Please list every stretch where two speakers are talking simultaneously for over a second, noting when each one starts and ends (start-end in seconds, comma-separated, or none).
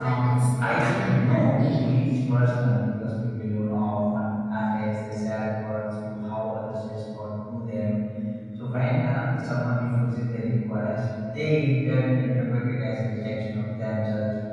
0.6-1.9